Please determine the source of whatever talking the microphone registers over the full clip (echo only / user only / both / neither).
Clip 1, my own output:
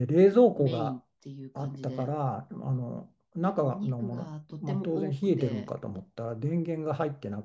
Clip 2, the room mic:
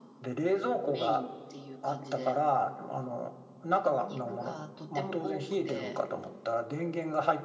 echo only